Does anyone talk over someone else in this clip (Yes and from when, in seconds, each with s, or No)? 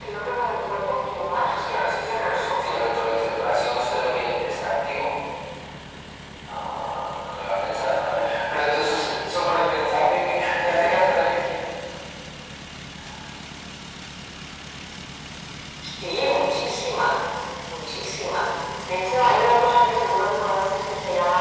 Yes, from 1.3 s